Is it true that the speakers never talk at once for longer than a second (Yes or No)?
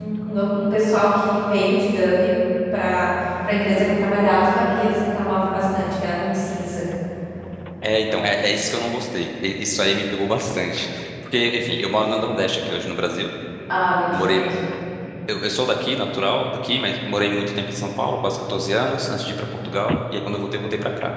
Yes